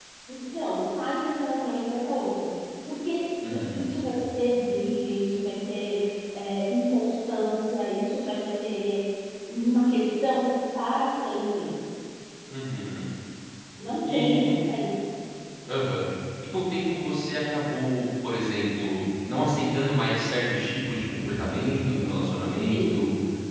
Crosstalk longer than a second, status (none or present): none